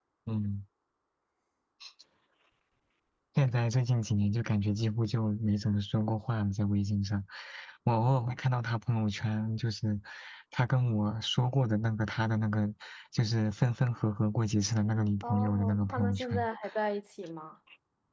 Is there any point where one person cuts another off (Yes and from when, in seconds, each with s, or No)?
Yes, from 15.2 s